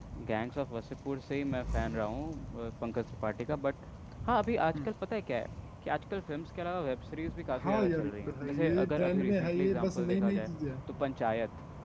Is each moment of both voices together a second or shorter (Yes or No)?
No